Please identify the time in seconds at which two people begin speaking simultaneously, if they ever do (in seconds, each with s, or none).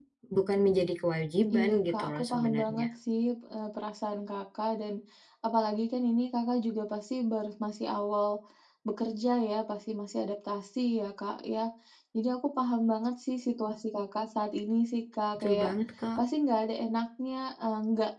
1.6 s